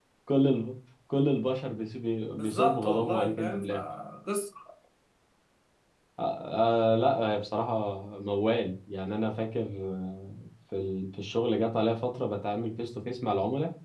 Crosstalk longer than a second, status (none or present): present